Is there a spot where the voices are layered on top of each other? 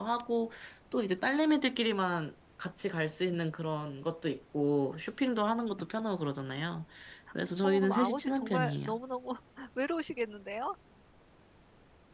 Yes, from 7.6 s

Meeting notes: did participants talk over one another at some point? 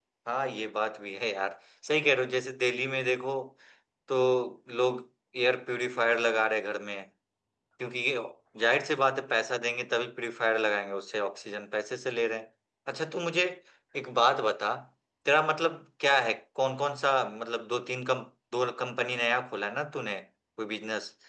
No

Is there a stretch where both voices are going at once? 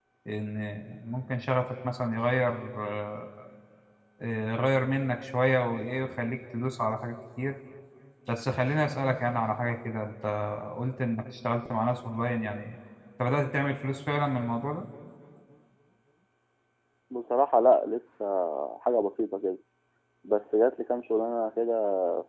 No

